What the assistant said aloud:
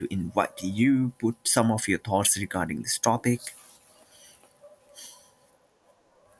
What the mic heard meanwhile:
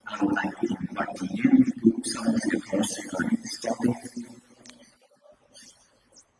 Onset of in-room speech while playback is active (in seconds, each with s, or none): none